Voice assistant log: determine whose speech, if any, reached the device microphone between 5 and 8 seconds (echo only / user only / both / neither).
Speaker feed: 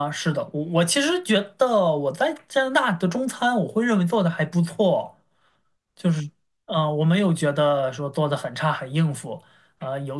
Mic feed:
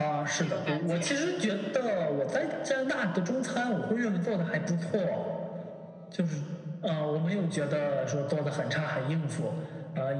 echo only